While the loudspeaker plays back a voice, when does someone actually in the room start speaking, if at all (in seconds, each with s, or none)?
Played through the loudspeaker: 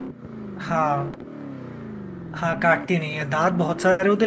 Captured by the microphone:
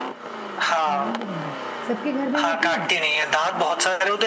0.9 s